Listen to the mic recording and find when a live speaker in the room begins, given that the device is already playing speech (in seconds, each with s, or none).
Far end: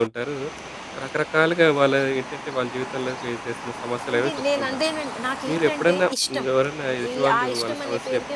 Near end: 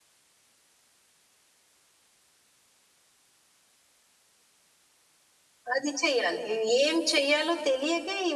5.7 s